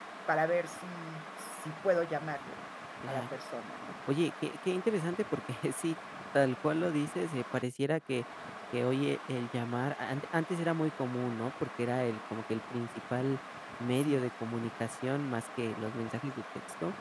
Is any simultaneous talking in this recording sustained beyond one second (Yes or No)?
No